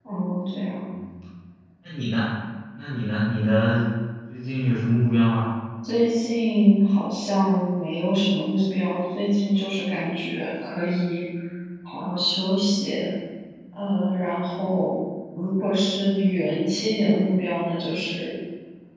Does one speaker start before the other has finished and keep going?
No

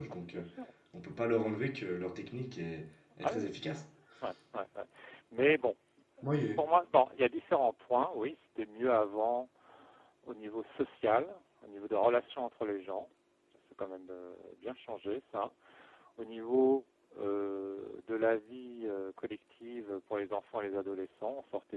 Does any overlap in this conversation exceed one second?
No

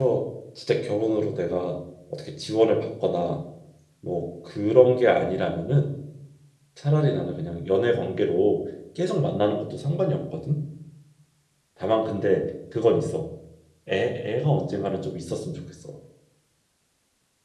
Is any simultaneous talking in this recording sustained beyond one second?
No

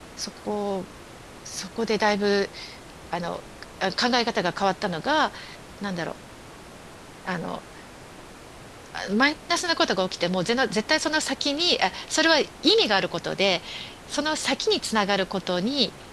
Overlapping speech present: No

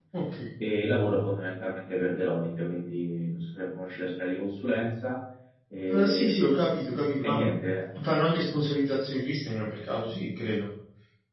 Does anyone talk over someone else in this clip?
Yes, from 5.9 s

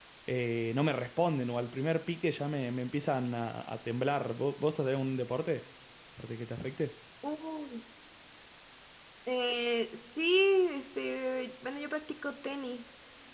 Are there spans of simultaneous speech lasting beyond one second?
No

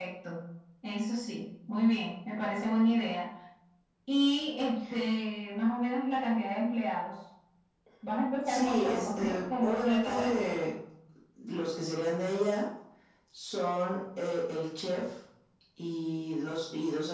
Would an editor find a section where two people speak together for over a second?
Yes, from 8.5 s

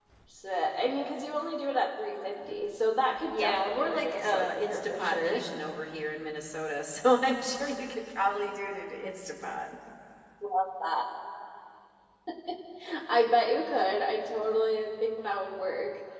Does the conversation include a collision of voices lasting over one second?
Yes, from 3.2 s

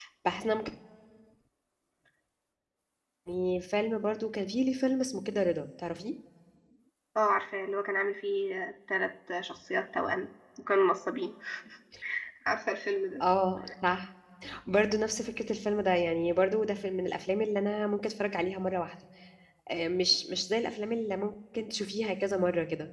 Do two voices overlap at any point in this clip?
No

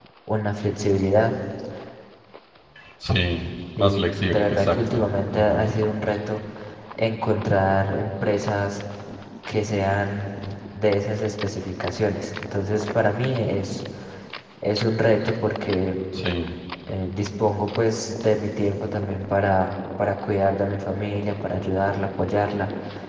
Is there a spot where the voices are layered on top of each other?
Yes, from 3.8 s

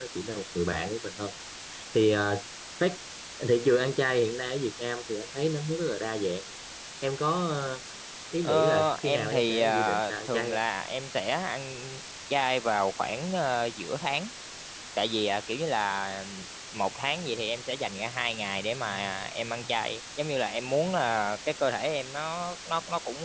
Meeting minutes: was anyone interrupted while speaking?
Yes, from 8.4 s

